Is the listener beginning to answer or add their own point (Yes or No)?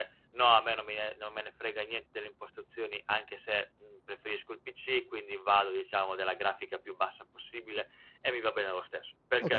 Yes